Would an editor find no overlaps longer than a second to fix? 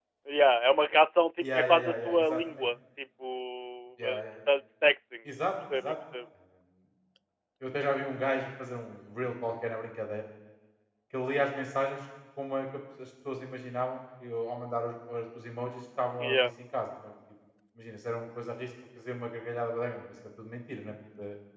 No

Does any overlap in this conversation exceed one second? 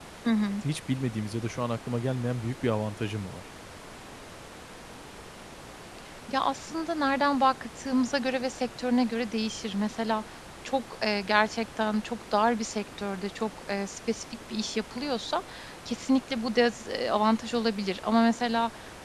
No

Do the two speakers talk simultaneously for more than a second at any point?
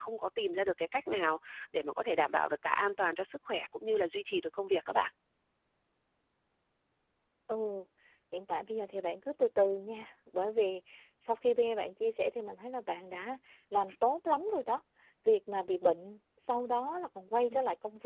No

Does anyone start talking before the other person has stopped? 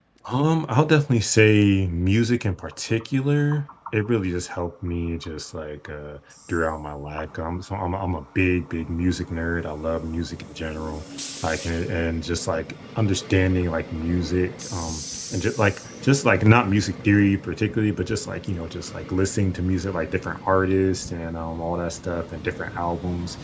No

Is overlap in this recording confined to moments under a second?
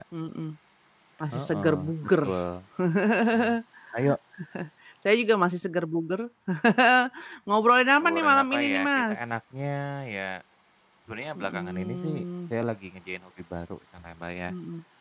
No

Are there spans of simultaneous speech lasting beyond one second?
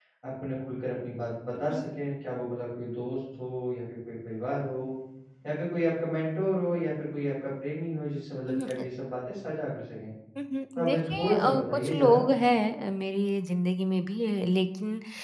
Yes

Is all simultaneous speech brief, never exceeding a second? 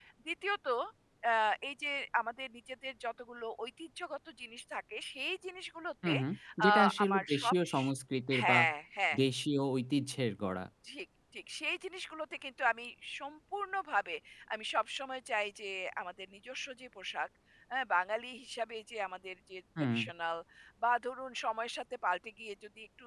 No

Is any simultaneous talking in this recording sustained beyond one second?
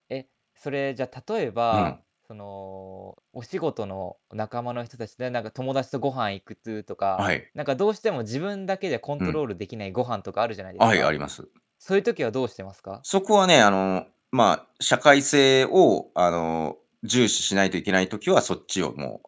No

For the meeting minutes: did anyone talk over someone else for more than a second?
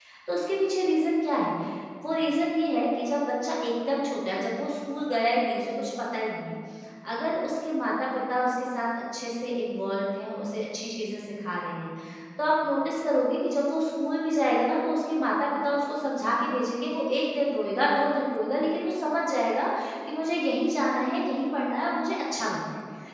No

